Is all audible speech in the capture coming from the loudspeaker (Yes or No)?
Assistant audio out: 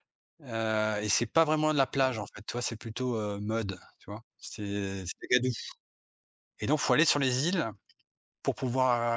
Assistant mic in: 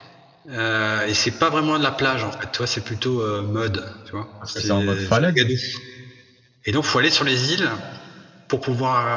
No